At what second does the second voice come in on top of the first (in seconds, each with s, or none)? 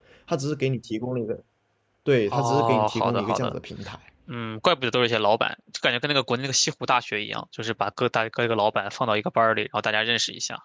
2.3 s